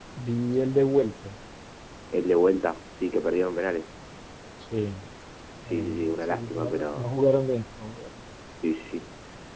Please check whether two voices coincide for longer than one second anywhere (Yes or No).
Yes